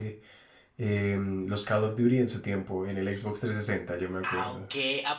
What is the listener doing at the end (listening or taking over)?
taking over